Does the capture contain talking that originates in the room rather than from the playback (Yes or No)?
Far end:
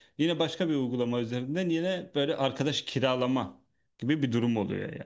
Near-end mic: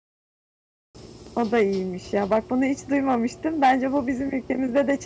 Yes